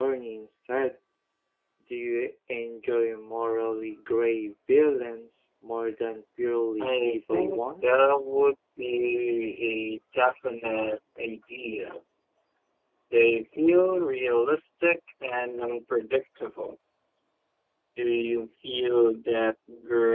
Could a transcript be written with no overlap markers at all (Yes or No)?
No